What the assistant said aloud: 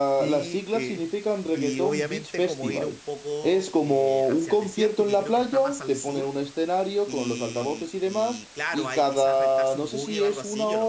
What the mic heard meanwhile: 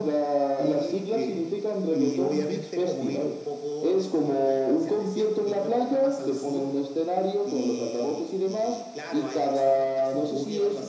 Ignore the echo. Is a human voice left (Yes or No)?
No